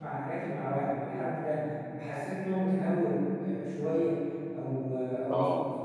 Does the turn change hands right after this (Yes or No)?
No